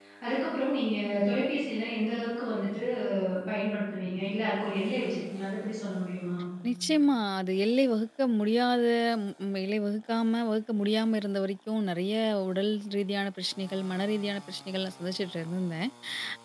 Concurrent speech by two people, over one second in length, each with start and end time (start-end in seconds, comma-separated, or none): none